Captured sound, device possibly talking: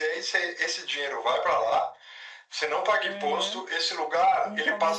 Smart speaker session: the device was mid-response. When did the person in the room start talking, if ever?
3.0 s

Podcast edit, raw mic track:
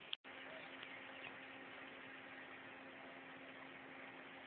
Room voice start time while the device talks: none

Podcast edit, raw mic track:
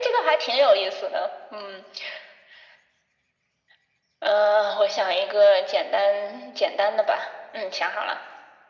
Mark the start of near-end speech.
none

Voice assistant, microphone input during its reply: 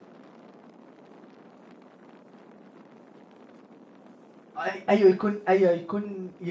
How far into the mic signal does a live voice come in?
4.6 s

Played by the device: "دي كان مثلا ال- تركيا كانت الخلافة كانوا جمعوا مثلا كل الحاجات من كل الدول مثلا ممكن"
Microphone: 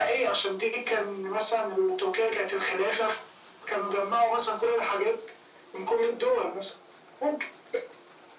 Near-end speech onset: none

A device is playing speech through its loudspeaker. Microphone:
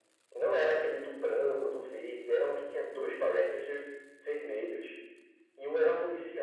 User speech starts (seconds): none

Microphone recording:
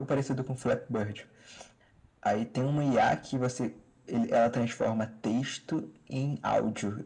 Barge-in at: none

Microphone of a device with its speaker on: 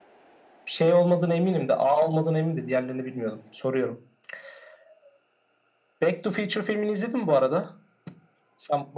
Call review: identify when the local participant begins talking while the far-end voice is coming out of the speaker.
none

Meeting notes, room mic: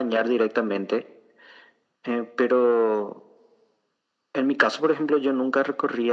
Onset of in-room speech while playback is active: none

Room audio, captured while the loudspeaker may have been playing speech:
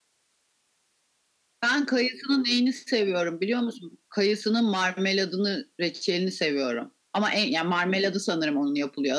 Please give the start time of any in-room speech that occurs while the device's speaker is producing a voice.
none

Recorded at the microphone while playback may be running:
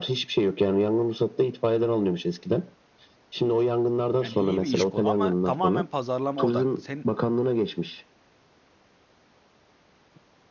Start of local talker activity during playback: 4.2 s

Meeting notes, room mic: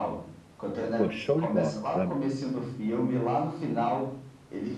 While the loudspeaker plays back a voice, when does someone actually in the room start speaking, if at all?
0.9 s

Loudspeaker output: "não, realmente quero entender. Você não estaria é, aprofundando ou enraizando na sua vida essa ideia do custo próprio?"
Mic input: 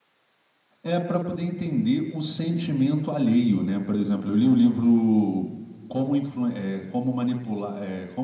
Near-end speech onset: 0.8 s

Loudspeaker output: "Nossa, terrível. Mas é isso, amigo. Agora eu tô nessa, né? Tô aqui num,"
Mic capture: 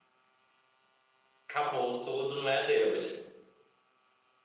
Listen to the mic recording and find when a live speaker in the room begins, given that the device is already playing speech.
1.5 s

